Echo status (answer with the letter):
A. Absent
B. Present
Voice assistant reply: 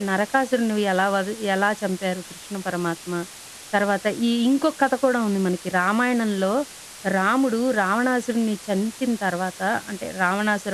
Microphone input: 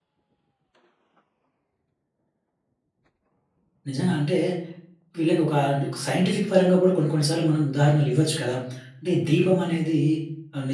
A